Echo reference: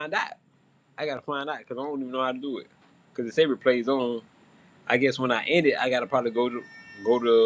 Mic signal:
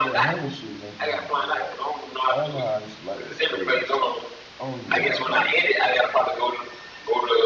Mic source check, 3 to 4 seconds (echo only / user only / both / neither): both